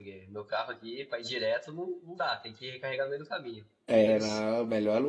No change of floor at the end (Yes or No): No